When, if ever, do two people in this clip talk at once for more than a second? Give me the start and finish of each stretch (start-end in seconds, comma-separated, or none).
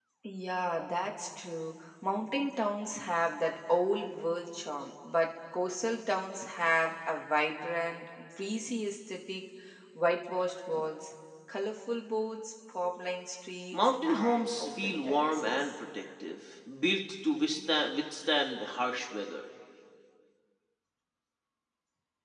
13.7-15.7